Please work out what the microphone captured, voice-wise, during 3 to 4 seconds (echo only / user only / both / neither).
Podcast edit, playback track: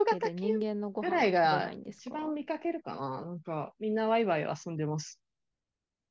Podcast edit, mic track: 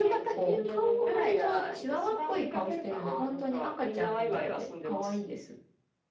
both